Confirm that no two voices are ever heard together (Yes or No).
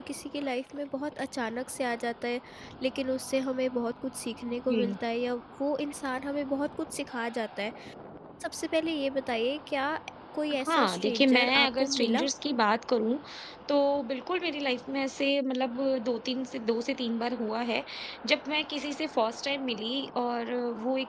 No